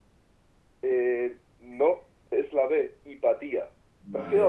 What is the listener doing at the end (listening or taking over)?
taking over